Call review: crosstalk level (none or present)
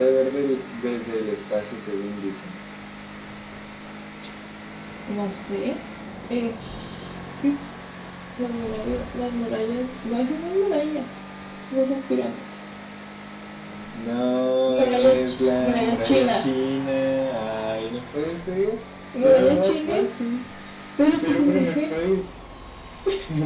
present